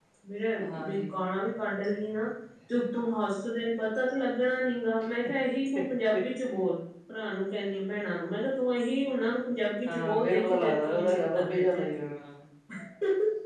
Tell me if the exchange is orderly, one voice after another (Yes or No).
No